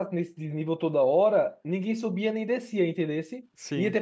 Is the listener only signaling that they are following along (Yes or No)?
Yes